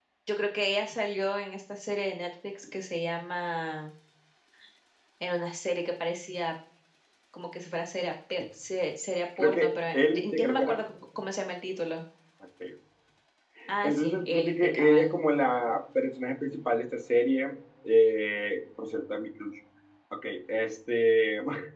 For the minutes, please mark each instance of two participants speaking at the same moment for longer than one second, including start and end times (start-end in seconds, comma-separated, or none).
9.4-10.8, 13.8-15.1